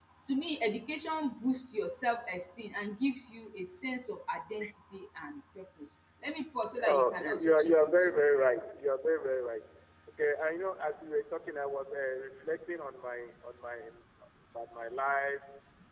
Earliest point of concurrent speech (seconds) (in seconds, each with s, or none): 6.7 s